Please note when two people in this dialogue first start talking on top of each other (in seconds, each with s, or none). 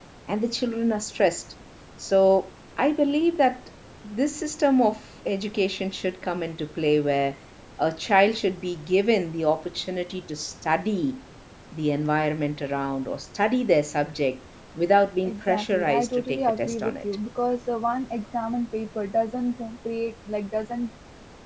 15.2 s